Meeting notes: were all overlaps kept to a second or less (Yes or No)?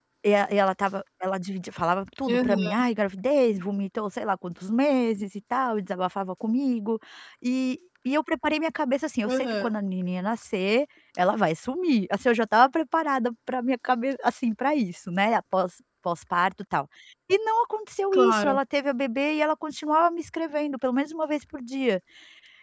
Yes